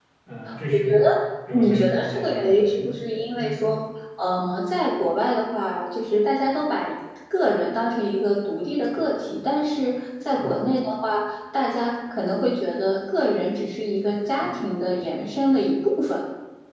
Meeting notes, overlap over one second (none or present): present